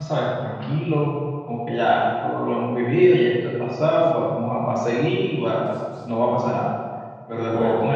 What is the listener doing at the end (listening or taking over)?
listening